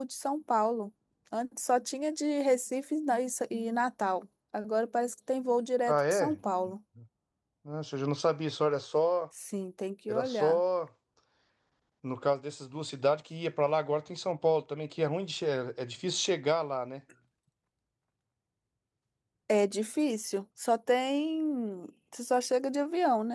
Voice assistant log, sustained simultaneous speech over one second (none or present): none